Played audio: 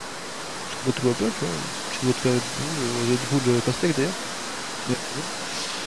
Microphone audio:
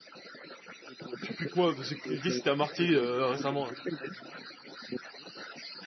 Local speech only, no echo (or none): Tu fais quoi? Parce que- Qu'est-ce qui t'a marqué euh, récemment là?